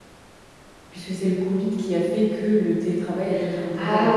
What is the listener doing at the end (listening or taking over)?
taking over